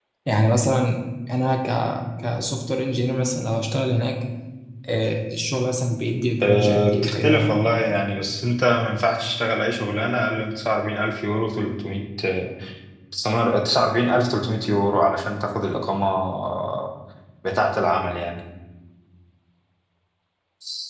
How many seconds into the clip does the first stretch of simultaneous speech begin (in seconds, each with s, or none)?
6.4 s